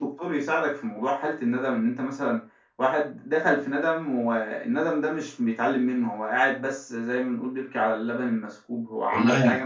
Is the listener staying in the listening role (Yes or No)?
Yes